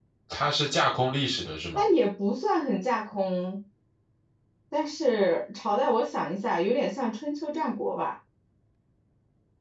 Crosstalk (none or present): none